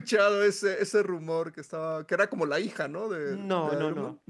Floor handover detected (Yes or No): Yes